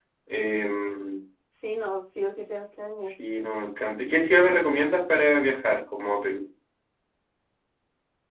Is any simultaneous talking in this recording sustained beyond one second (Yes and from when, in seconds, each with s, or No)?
No